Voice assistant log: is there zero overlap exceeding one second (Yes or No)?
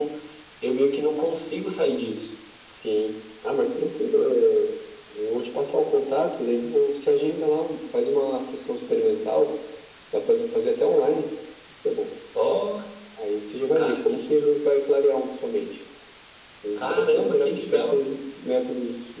No